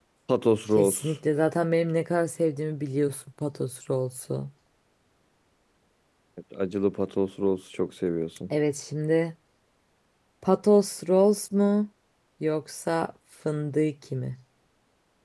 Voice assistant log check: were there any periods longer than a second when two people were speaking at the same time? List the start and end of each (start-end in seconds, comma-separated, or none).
none